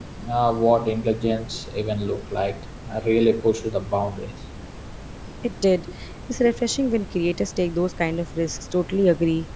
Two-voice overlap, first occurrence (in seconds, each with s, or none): none